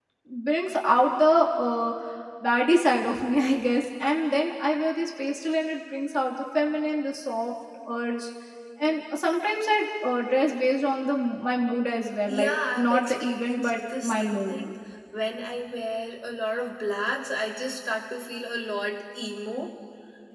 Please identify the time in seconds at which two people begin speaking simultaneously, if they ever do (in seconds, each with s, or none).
12.3 s